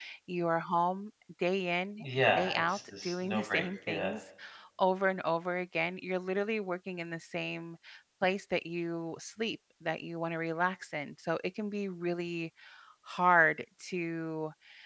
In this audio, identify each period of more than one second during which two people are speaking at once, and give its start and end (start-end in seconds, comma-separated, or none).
2.3-4.1